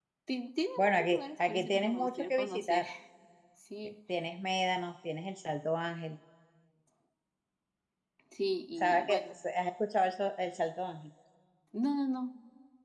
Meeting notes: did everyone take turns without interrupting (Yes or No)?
No